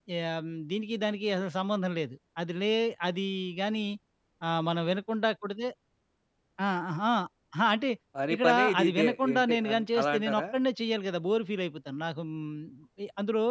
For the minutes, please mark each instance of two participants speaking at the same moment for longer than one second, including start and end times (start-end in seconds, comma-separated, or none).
8.3-10.4